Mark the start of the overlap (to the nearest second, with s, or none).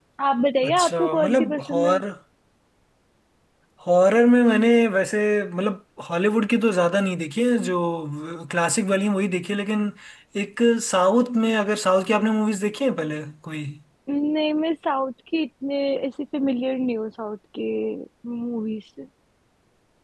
1 s